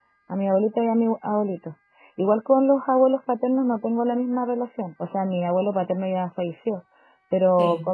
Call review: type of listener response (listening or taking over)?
listening